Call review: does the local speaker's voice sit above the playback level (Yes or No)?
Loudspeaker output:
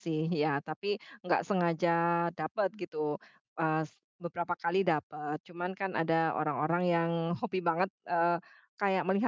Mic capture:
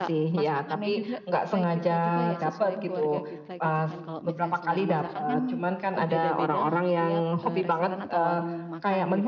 No